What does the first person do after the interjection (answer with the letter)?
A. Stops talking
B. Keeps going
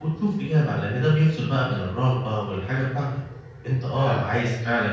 B